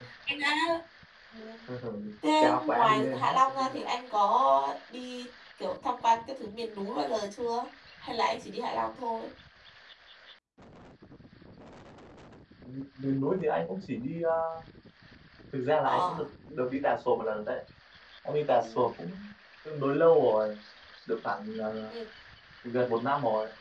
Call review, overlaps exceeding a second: present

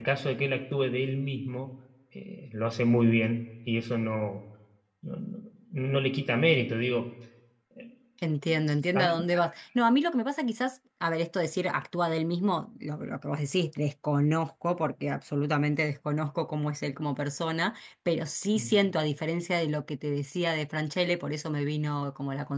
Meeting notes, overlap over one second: none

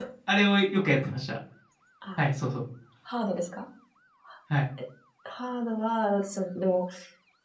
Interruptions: none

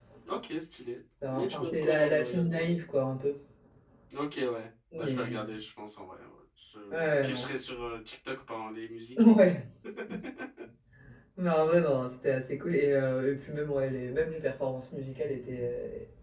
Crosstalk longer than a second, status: present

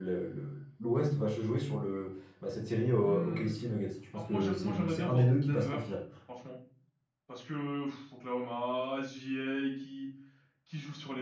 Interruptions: present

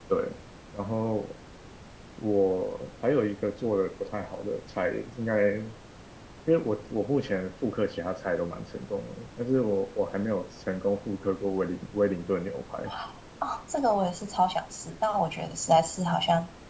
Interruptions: none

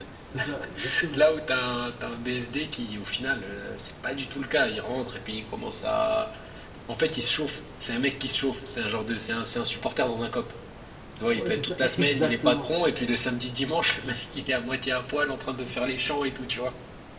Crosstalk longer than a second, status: present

